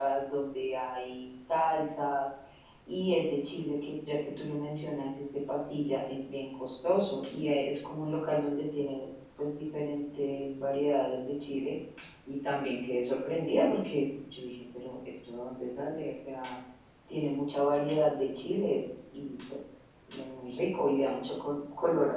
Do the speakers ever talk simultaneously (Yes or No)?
No